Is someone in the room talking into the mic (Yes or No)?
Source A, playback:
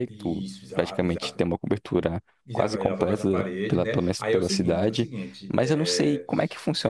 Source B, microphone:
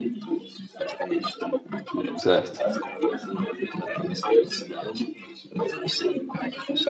Yes